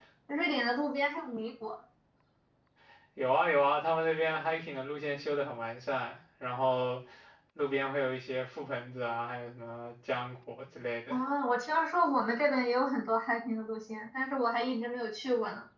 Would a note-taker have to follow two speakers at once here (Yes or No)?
No